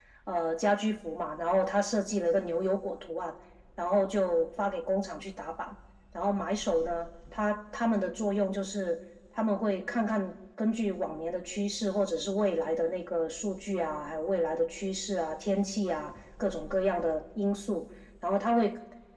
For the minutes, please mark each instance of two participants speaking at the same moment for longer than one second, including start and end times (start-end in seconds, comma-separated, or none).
none